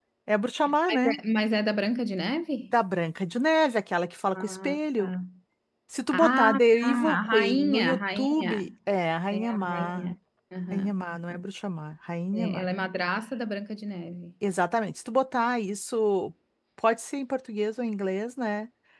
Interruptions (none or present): present